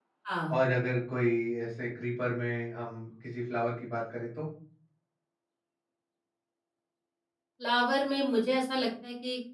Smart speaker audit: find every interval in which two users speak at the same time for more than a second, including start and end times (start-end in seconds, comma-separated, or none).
none